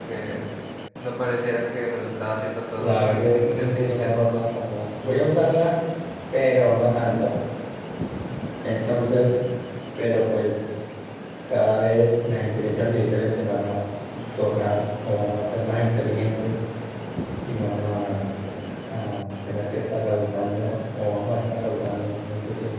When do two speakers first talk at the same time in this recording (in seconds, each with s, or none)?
2.8 s